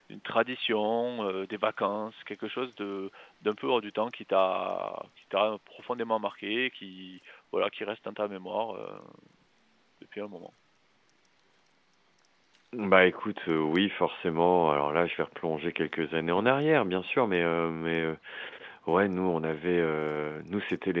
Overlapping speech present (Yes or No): No